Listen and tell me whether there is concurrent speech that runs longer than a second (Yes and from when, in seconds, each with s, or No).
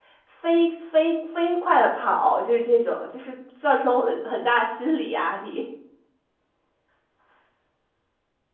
No